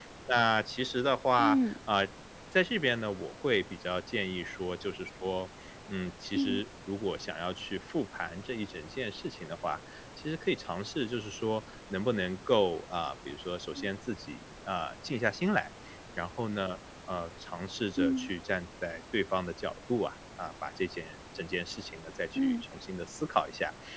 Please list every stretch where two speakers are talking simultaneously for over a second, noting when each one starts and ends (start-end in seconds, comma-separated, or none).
none